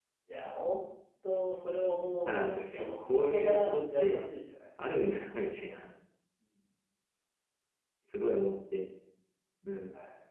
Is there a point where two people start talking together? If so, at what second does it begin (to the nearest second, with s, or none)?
2 s